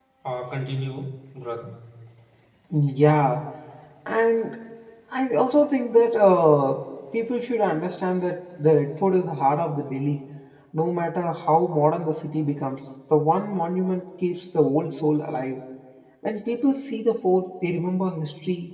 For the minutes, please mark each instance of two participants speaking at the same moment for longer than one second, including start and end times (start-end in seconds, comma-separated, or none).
none